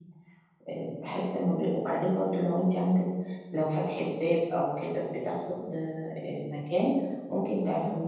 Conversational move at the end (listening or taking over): listening